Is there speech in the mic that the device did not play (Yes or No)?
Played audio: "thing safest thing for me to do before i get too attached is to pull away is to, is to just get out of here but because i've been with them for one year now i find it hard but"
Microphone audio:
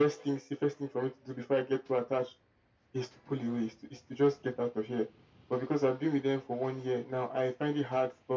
No